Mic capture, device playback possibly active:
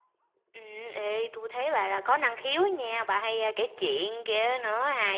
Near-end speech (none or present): none